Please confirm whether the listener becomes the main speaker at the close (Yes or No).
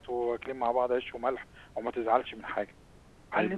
Yes